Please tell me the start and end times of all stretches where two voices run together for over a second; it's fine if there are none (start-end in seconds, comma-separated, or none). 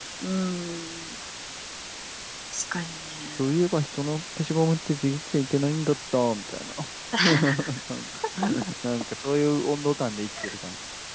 none